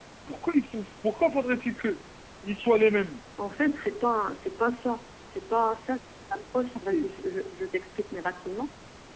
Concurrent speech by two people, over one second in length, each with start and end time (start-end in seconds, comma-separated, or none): none